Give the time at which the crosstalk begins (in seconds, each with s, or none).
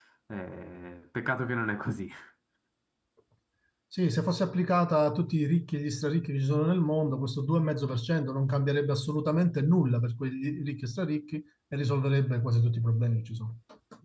none